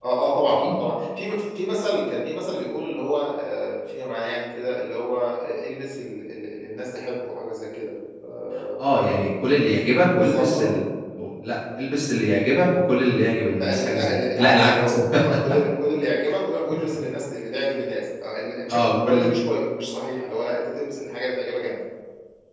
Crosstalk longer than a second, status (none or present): present